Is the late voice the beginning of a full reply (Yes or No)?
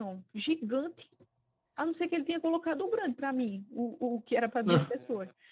No